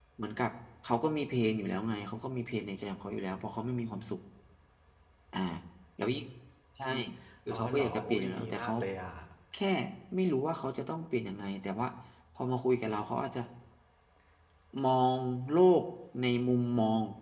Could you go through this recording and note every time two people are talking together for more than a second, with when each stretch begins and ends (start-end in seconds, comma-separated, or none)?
7.5-8.7